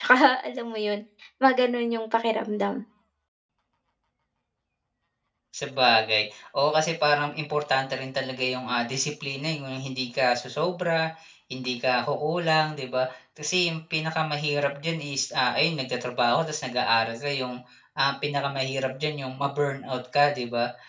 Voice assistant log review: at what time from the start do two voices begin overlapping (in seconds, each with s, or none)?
none